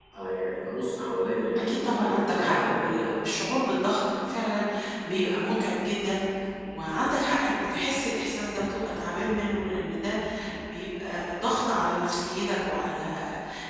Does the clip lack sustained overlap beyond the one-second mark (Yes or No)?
No